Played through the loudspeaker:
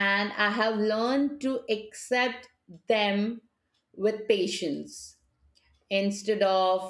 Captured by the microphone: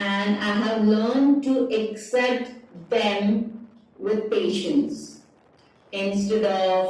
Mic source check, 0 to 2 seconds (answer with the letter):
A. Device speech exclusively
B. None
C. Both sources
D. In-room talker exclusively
A